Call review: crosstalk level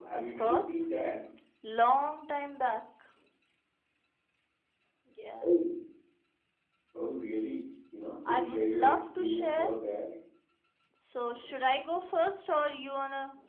present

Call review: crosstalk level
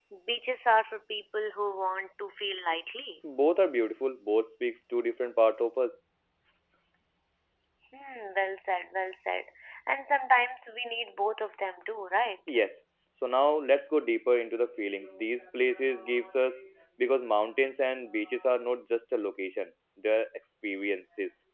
none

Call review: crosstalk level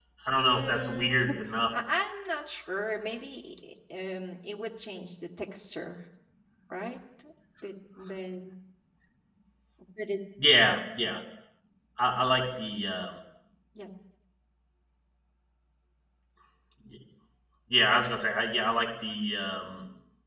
present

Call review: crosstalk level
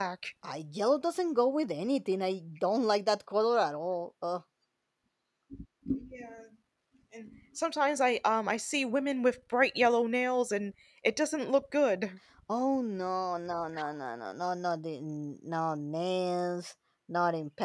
none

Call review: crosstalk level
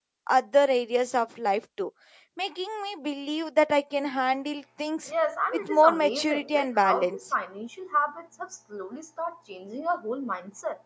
present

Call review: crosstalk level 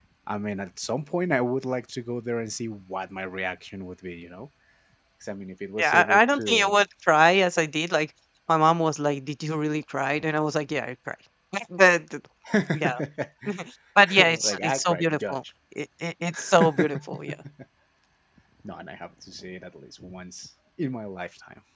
present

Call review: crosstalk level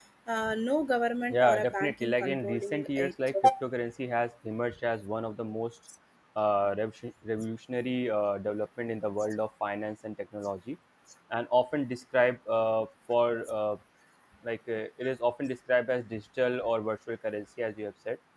present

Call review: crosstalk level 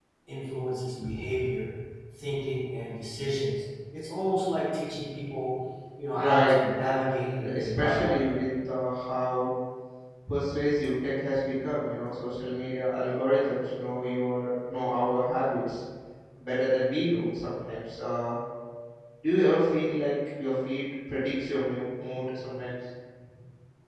present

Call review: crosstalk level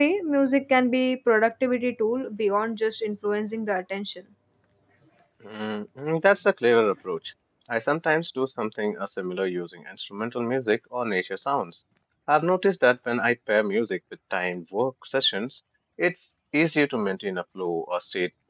none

